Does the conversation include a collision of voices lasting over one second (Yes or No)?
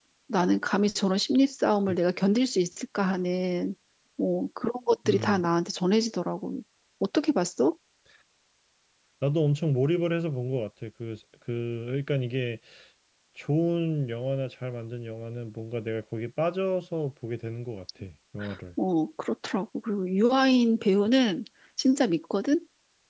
No